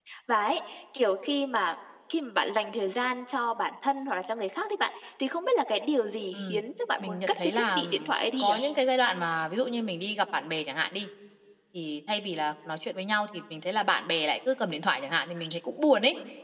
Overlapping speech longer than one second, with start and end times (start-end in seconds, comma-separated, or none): 7.0-8.5